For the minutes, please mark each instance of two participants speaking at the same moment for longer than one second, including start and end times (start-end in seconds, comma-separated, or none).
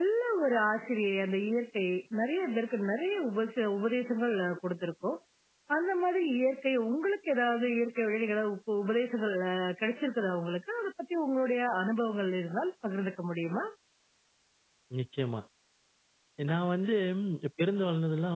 none